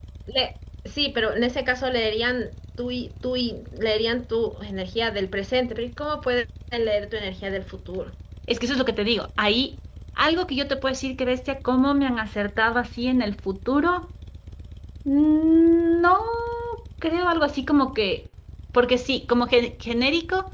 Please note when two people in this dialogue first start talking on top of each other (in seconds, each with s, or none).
none